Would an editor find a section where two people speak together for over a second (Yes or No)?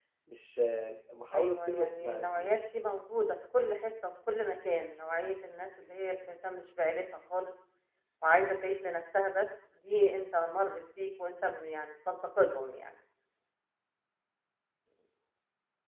Yes